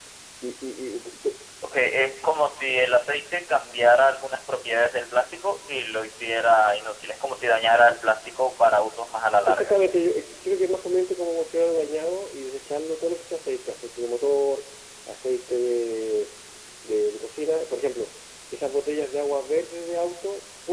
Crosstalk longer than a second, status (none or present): none